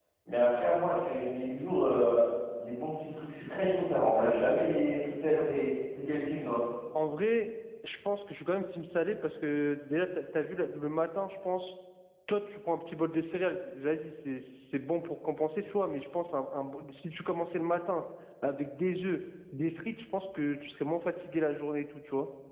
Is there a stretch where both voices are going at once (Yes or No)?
No